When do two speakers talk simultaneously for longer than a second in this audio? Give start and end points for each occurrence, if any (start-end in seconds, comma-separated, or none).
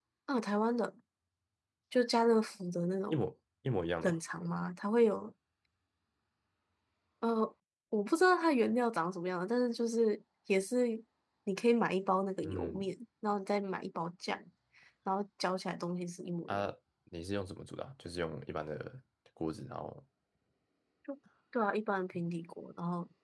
none